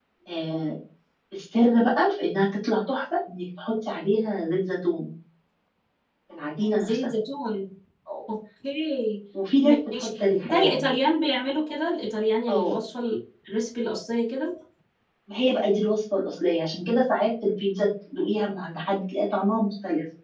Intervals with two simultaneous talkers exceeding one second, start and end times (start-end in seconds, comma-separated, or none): 9.6-10.9